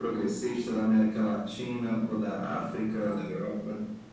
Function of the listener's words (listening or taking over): taking over